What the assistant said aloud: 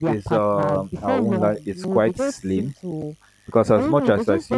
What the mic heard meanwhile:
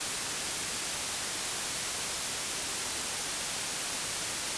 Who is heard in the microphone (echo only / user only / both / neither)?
neither